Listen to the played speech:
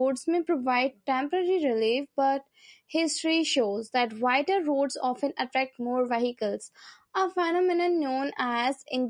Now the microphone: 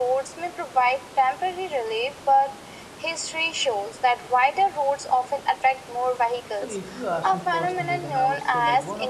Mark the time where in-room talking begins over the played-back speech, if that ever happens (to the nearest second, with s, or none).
7 s